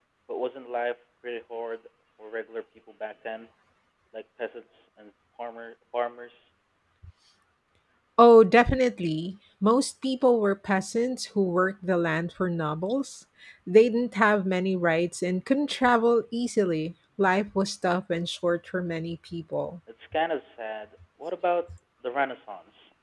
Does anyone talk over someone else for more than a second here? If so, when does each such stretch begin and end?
none

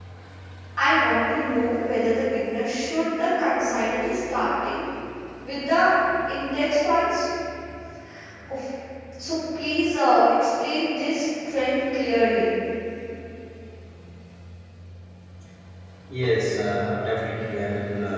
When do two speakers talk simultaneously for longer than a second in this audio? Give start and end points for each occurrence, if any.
none

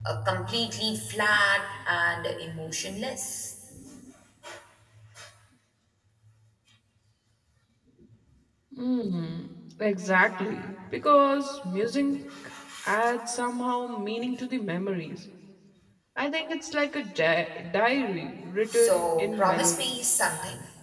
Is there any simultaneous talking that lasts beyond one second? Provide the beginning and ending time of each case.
18.7-20.0

